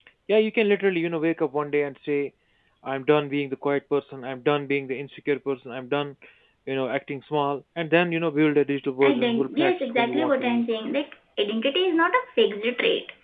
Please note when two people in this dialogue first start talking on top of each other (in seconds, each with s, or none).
9.0 s